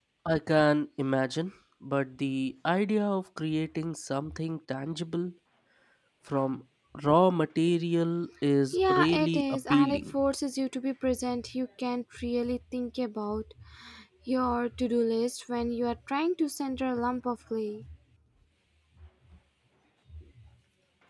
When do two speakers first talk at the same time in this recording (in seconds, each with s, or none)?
8.7 s